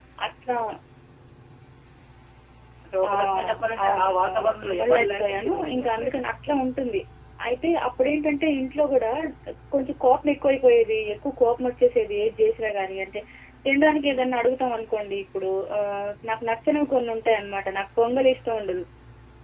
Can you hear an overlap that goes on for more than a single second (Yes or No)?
Yes